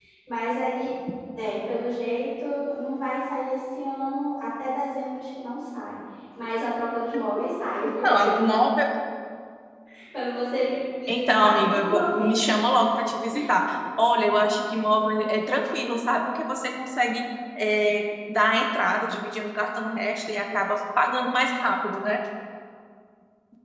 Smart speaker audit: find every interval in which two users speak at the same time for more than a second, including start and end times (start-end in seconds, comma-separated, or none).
11.1-12.6